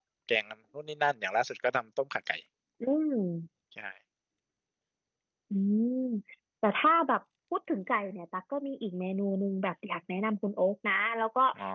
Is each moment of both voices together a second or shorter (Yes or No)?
Yes